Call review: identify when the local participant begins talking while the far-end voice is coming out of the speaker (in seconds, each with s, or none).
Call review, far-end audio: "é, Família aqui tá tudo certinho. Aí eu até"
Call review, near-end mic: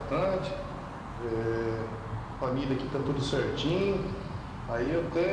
none